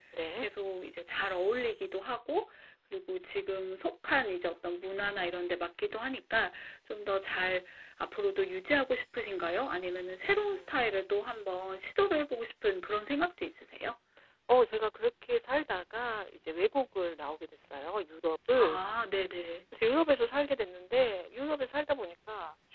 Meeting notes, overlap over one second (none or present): none